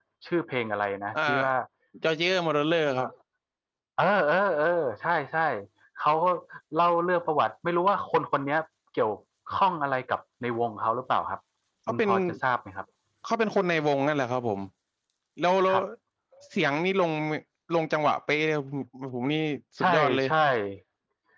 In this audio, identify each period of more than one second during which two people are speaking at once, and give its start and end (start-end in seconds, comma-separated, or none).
none